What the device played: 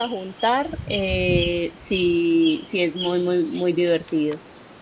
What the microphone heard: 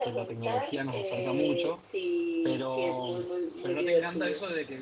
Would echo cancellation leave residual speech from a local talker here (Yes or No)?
Yes